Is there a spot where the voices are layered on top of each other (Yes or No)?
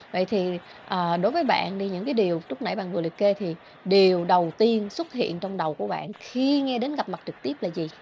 No